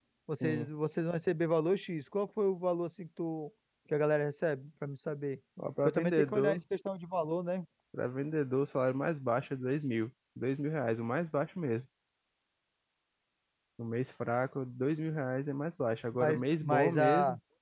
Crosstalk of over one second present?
Yes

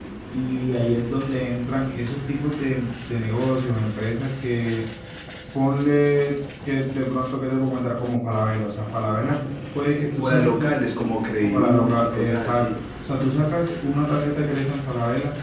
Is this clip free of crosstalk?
No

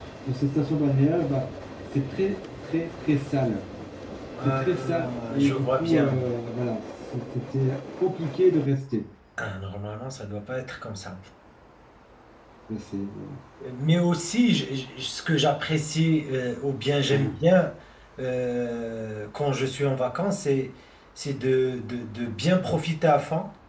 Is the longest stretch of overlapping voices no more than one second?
No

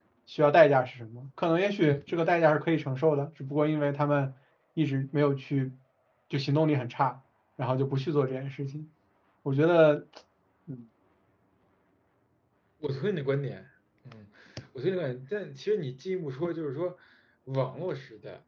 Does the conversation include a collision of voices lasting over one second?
No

